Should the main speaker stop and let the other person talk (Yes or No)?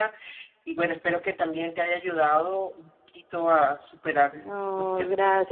Yes